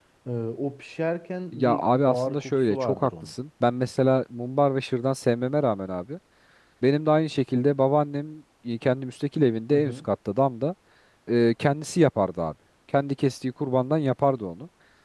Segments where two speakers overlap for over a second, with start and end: 1.5-3.3

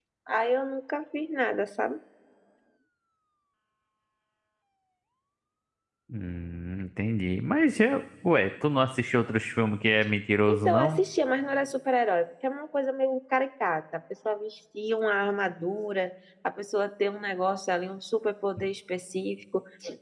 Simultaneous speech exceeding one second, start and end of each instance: none

